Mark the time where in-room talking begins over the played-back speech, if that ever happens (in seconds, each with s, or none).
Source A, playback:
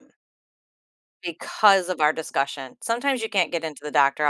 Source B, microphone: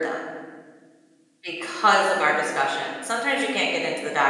none